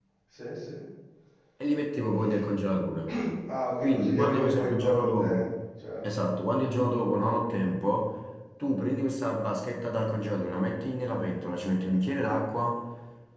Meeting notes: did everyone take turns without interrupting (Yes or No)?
No